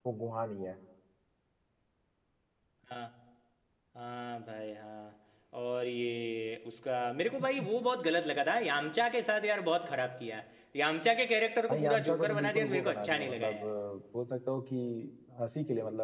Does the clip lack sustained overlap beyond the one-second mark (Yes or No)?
No